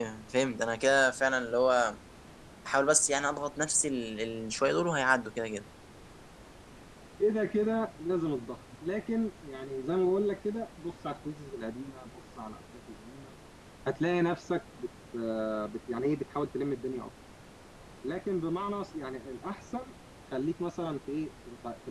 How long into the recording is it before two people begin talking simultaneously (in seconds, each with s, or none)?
none